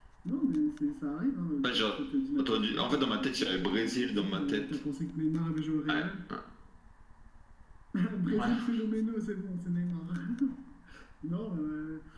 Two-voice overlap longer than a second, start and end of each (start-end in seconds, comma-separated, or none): 2.4-4.6